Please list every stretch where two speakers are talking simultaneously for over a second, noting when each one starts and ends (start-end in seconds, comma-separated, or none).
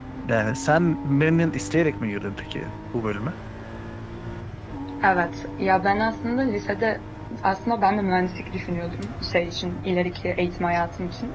none